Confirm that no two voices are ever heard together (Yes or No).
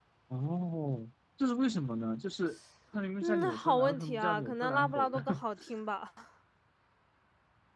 No